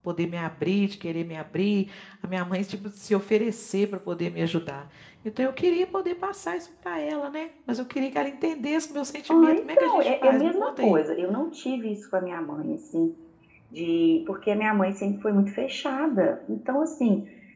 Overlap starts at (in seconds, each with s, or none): 9.3 s